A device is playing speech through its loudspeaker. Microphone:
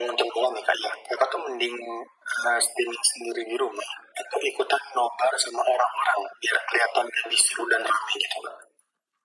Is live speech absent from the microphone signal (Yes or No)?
Yes